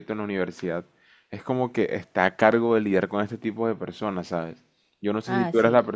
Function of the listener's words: listening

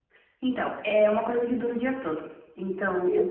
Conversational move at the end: listening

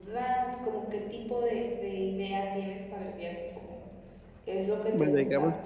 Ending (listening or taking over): taking over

